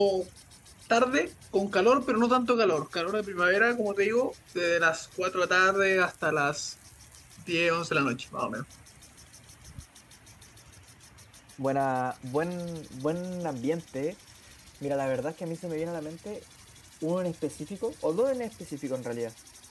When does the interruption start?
none

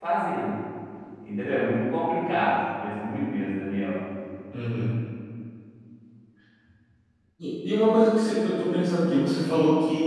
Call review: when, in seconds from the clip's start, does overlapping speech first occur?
none

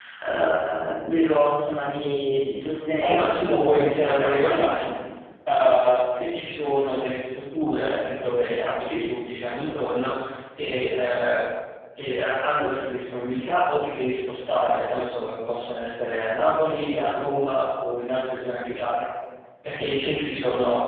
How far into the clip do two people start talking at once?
3.0 s

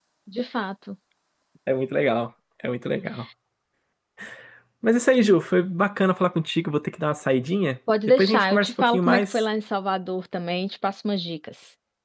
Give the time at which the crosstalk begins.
7.9 s

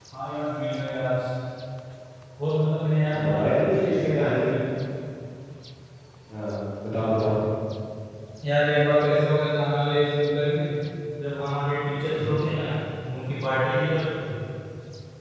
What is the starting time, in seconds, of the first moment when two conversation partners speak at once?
3.1 s

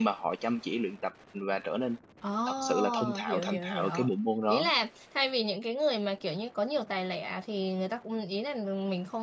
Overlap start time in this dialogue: 2.5 s

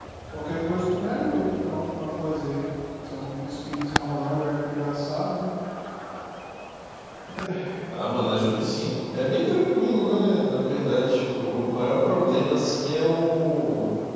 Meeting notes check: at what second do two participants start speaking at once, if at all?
none

